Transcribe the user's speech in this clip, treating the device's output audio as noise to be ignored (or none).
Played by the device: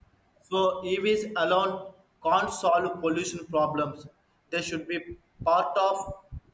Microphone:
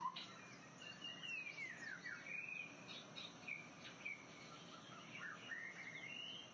none